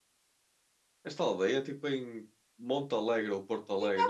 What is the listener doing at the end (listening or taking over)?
taking over